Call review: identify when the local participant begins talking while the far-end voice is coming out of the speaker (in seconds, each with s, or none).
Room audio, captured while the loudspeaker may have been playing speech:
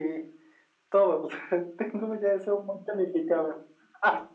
none